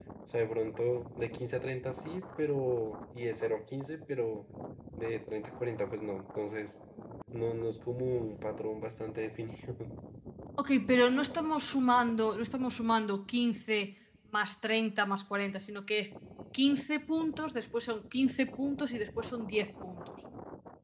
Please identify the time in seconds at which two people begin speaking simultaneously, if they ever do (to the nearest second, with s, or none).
none